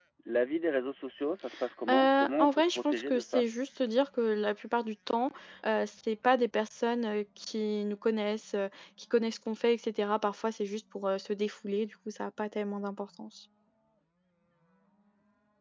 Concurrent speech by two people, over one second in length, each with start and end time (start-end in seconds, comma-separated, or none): 1.9-3.5